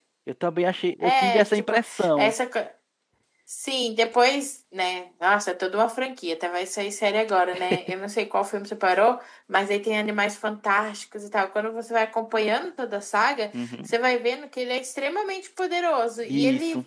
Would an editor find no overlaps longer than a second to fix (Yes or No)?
No